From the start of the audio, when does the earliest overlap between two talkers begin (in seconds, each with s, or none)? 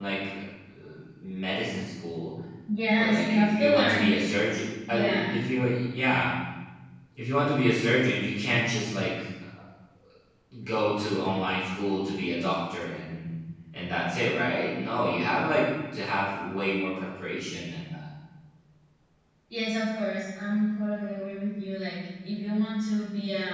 2.9 s